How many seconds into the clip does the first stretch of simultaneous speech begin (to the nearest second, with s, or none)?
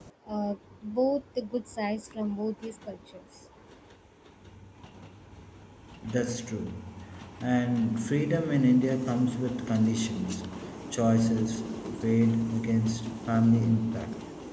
none